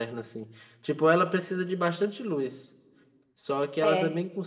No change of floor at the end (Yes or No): Yes